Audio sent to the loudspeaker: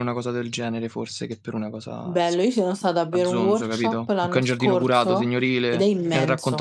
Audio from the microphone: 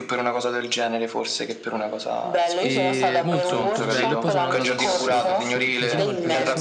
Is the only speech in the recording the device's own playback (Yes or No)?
No